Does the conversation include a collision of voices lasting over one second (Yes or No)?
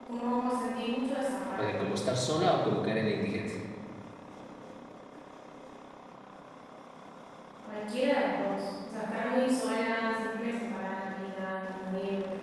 No